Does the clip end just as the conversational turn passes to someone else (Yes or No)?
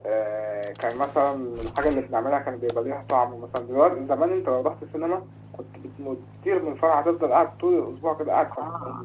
No